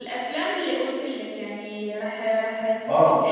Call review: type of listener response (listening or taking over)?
taking over